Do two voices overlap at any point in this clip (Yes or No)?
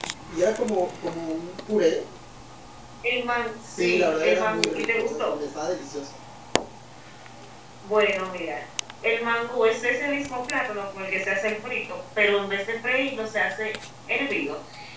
Yes